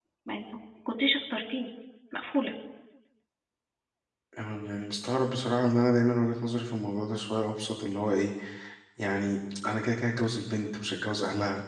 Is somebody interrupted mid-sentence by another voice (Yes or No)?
No